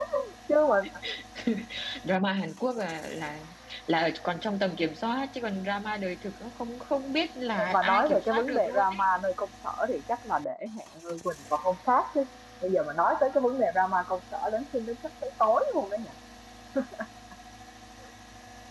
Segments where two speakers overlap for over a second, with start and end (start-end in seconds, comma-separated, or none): 7.7-9.0